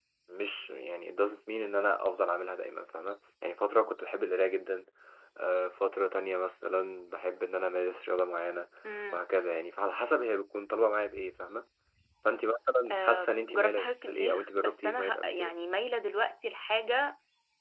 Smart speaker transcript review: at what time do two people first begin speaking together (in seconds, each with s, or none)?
12.9 s